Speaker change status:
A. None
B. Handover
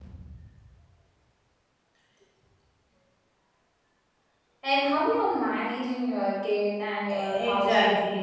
B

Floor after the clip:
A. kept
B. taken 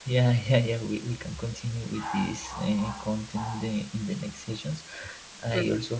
A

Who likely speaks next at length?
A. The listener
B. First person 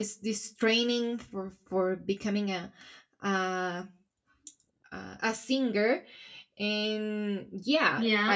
B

